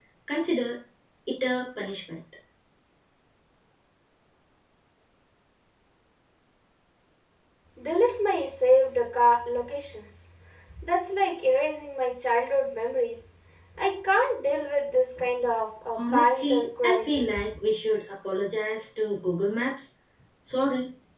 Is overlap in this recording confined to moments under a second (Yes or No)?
No